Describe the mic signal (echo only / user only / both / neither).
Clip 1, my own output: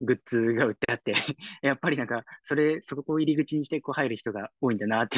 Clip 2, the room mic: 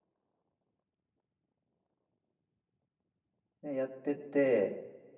user only